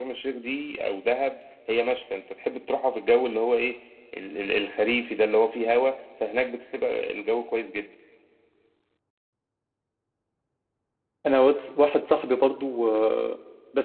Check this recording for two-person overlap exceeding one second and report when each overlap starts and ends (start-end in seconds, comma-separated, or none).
none